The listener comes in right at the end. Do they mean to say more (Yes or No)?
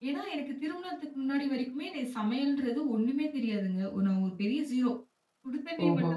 No